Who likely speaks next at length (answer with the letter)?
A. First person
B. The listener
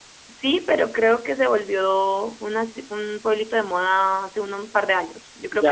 A